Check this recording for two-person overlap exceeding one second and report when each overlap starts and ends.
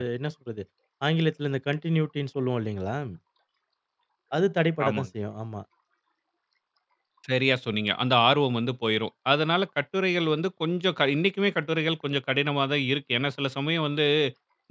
none

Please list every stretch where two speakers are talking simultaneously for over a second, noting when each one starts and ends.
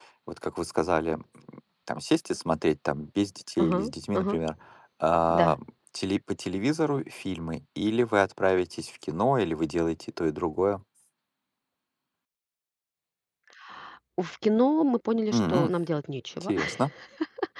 none

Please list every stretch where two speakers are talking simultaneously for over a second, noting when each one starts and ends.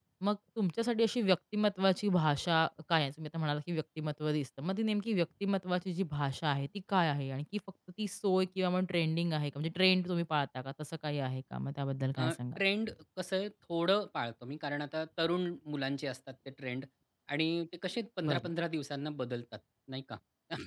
none

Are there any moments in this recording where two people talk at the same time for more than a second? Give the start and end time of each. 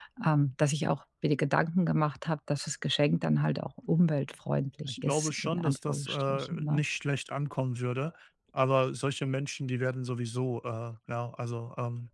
4.9-6.8

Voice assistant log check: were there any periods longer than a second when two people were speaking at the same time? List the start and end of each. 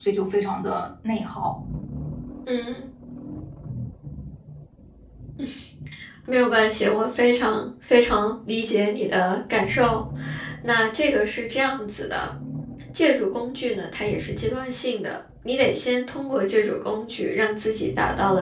none

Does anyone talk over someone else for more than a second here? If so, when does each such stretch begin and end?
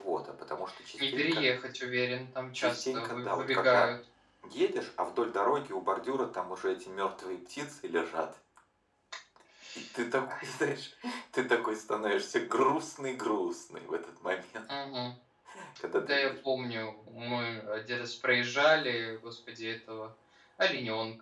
2.6-3.9

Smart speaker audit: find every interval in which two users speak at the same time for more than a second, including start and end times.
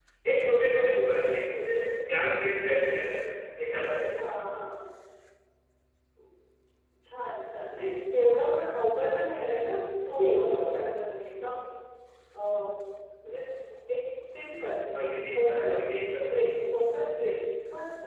none

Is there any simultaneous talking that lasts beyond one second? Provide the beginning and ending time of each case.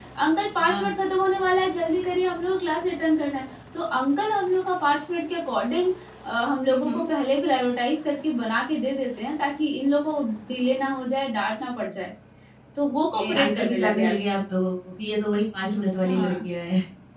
12.9-14.4

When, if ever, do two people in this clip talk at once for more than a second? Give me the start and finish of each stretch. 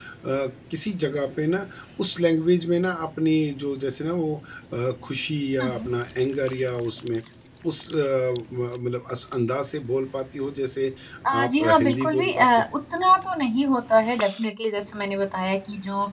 11.3-12.6

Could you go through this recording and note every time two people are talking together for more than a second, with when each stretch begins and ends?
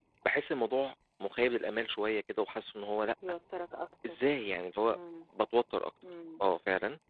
none

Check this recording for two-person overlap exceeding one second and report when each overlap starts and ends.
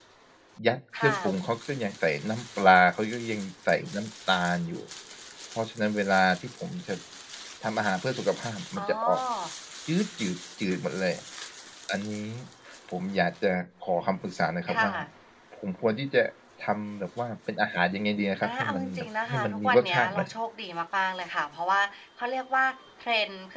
18.4-20.3

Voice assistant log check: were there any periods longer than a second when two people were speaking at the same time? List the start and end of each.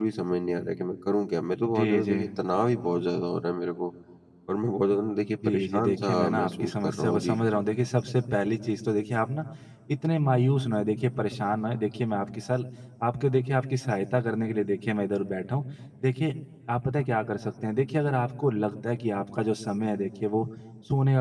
5.4-7.4

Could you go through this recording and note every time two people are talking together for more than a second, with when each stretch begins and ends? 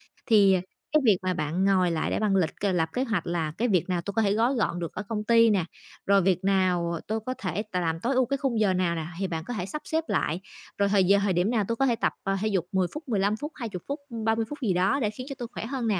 none

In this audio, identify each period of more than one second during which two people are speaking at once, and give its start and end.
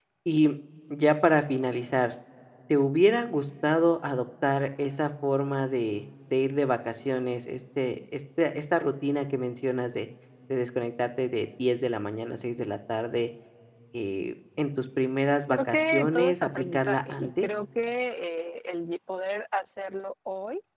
15.5-17.5

